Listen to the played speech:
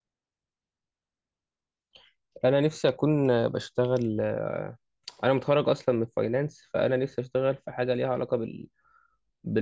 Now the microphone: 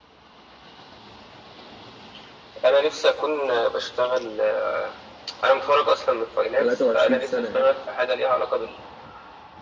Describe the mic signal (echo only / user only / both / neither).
both